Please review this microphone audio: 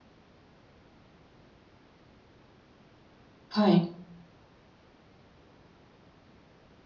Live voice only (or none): はい。